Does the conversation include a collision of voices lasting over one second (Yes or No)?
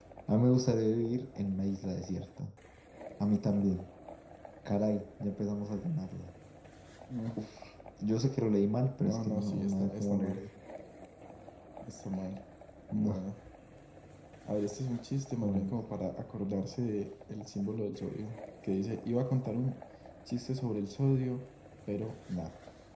Yes